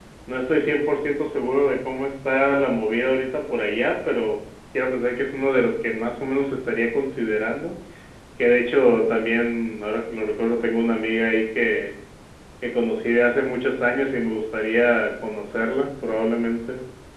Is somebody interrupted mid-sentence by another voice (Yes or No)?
No